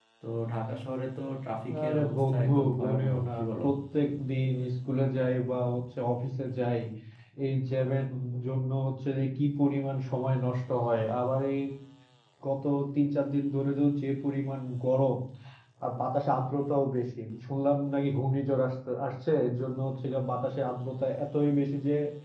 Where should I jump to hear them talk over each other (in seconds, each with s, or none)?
1.9 s